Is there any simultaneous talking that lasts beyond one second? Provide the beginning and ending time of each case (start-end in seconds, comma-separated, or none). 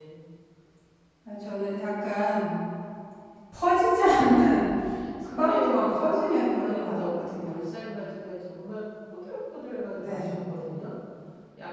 5.4-7.7